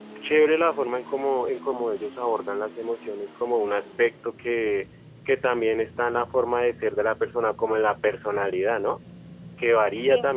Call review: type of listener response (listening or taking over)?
listening